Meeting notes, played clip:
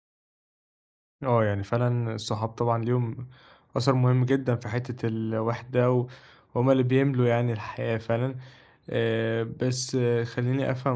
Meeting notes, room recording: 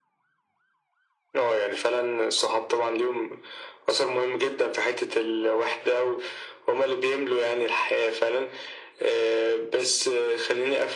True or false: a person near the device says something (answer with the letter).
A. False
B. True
A